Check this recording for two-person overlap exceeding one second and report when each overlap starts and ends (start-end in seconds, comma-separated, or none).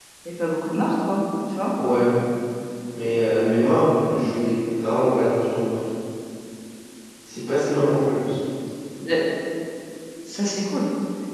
none